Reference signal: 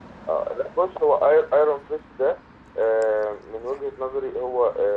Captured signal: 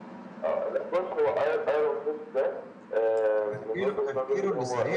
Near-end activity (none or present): present